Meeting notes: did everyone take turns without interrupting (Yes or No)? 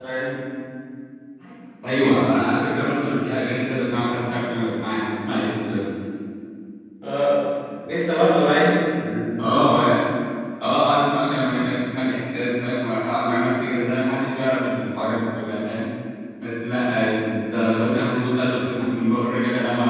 Yes